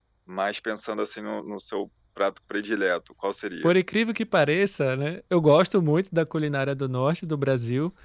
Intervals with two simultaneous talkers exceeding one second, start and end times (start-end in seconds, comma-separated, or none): none